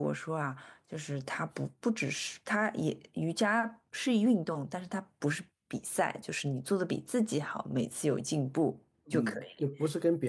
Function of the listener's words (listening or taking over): taking over